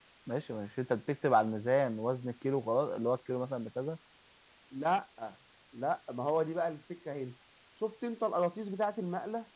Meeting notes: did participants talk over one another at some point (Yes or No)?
No